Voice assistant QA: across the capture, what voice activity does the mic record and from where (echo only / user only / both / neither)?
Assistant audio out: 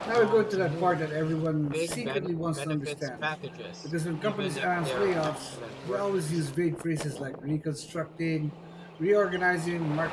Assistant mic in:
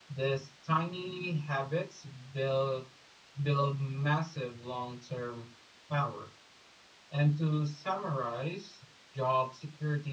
user only